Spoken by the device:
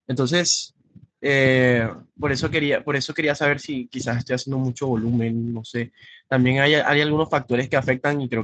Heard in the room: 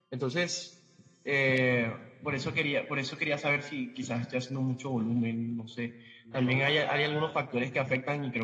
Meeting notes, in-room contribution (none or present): present